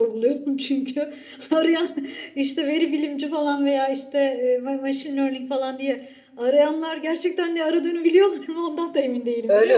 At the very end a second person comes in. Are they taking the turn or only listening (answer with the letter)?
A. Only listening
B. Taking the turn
B